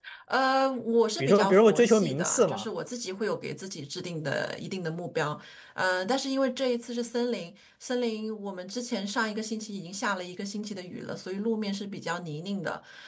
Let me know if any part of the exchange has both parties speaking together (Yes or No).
Yes